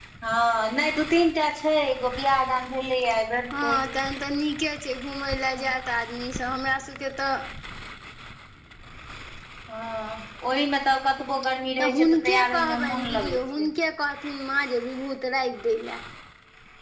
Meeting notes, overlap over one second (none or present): present